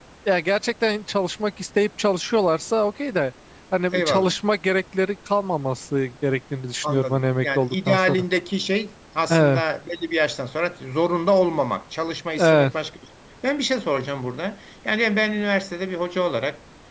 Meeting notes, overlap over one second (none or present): present